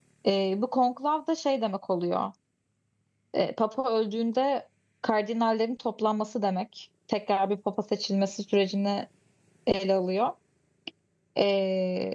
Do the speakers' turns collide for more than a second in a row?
No

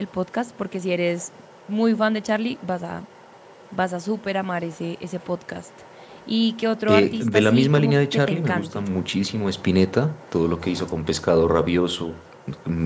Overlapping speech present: Yes, from 6.9 s

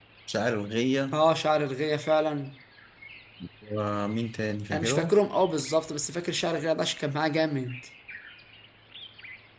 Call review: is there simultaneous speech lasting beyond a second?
No

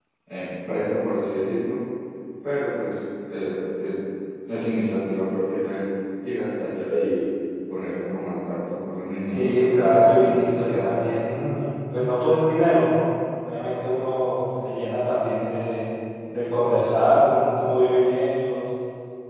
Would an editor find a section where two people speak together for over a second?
Yes, from 9.3 s

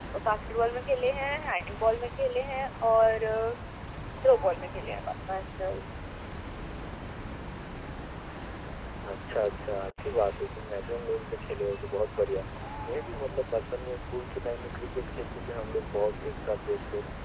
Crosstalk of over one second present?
No

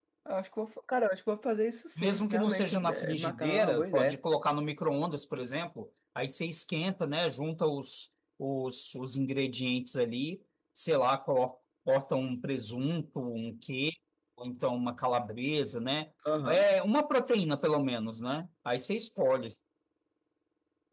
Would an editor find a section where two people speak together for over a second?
Yes, from 2.0 s

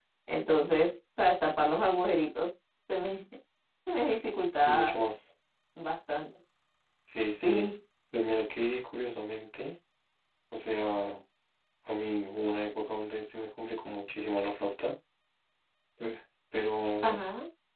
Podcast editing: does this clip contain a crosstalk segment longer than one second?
No

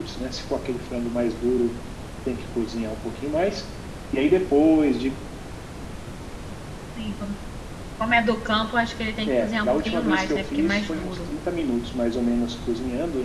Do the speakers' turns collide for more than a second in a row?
Yes, from 9.3 s

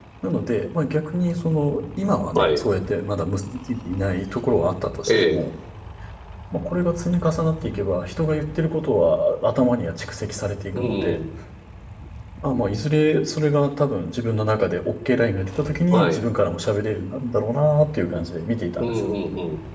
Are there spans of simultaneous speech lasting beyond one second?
No

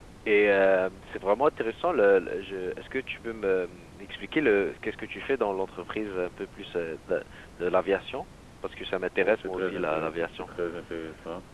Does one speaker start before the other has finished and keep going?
Yes, from 9.2 s

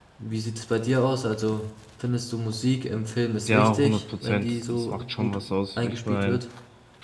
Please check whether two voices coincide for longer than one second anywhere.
Yes, from 3.5 s

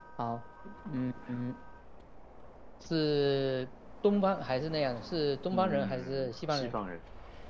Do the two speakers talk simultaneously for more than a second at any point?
Yes, from 5.5 s

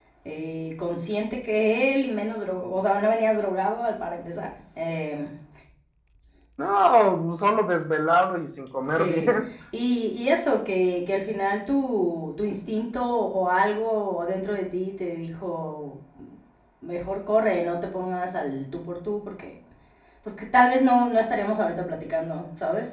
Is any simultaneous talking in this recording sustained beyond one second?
No

